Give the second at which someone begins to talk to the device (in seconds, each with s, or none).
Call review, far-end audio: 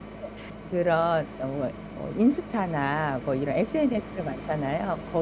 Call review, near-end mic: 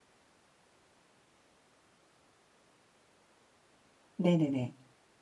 4.2 s